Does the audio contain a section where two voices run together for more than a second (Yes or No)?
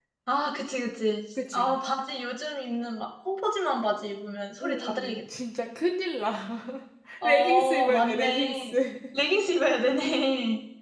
Yes